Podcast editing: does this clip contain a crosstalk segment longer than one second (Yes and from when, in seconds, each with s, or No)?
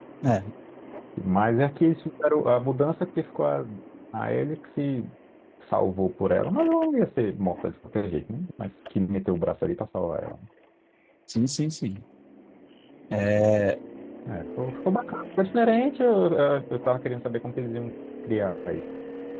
No